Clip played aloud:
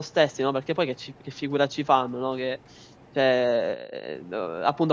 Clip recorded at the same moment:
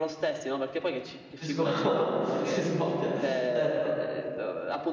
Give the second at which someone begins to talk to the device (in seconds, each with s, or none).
1.4 s